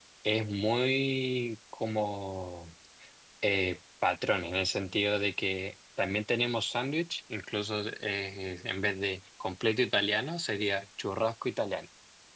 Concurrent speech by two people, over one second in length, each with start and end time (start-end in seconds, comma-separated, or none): none